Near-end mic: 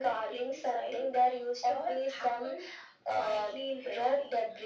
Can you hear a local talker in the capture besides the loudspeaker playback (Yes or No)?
No